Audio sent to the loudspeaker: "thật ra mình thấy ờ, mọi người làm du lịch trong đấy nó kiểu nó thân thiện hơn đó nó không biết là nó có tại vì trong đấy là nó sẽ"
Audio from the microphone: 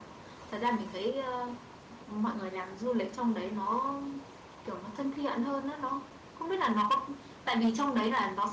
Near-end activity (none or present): none